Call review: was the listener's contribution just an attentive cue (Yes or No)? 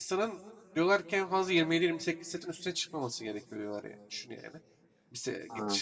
Yes